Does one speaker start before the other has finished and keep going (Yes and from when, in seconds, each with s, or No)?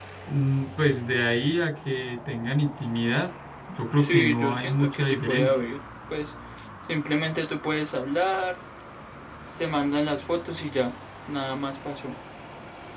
Yes, from 3.9 s